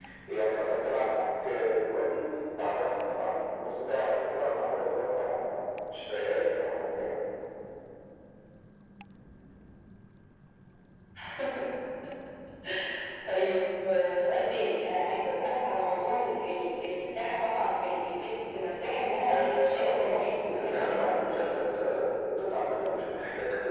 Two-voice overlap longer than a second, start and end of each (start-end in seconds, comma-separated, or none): 19.3-21.9